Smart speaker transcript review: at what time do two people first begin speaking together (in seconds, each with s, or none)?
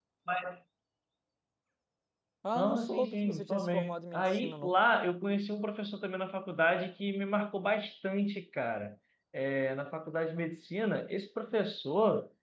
2.5 s